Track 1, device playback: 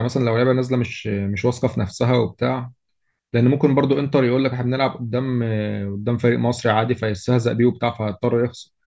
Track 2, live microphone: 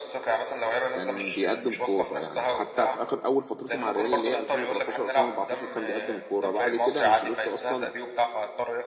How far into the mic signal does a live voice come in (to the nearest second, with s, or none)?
1 s